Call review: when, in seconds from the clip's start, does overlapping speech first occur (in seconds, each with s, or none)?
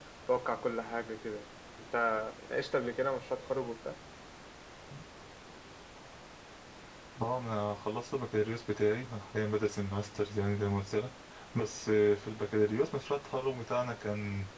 none